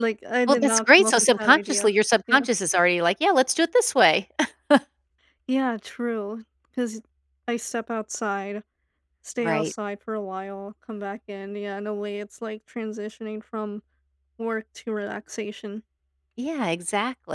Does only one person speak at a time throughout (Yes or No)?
No